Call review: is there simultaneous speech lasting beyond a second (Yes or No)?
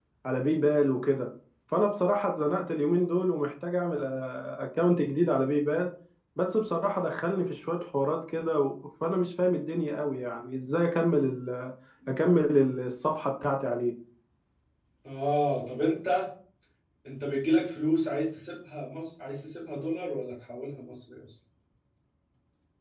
No